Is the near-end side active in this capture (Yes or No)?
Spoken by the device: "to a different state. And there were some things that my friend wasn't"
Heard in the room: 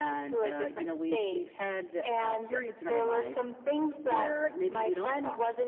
Yes